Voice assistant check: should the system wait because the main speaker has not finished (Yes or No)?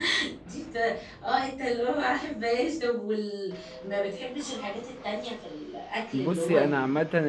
No